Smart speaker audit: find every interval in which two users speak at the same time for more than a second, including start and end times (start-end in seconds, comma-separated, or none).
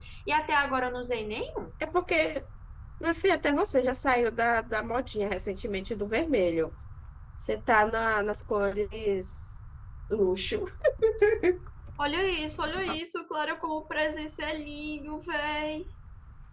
none